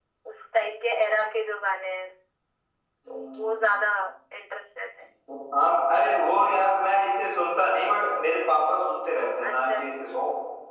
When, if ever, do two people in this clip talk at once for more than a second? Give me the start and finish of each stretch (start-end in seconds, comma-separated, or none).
none